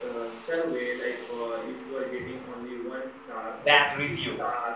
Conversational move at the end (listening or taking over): listening